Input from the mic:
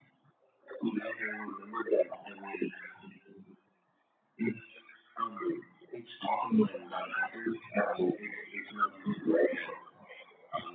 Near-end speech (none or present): none